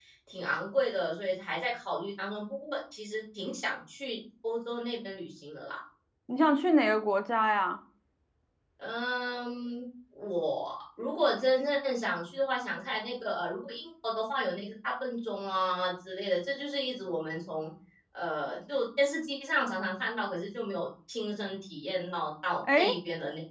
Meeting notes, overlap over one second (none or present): none